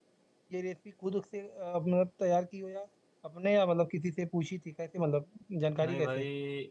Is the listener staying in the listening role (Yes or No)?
No